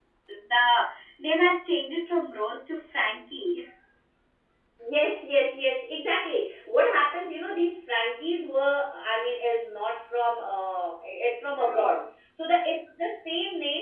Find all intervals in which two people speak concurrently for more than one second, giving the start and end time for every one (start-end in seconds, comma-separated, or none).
none